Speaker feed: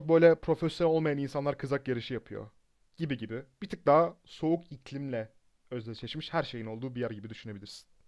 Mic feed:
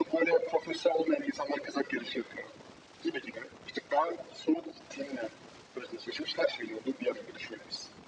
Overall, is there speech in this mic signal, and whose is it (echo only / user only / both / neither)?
echo only